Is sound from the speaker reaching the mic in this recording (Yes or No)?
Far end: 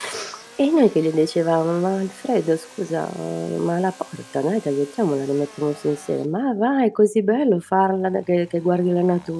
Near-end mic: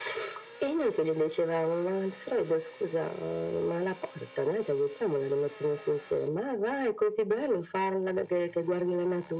Yes